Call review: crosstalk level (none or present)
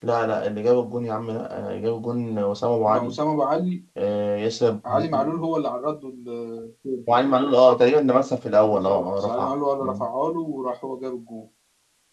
present